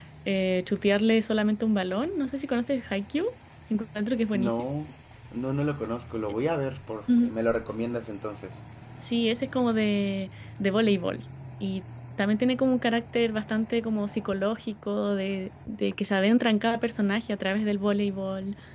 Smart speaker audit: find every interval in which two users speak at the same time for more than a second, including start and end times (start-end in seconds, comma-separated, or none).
none